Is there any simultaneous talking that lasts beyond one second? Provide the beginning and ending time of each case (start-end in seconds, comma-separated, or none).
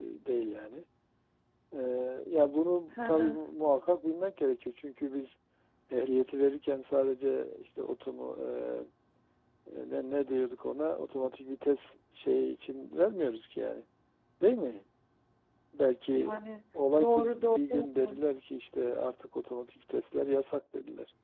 17.0-18.2